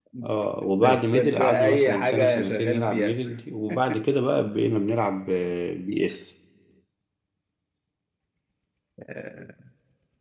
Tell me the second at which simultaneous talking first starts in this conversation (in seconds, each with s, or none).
0.8 s